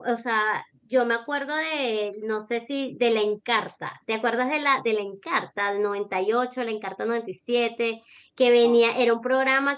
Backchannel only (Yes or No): Yes